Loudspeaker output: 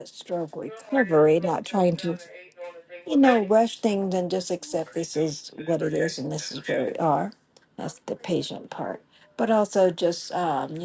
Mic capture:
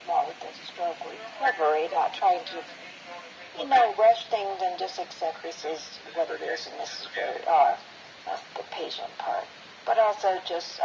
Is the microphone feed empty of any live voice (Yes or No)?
Yes